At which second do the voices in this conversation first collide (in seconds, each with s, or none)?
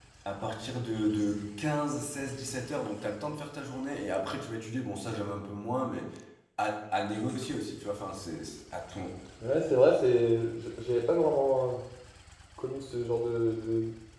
none